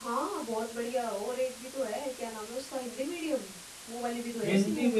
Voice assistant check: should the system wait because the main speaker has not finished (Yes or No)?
No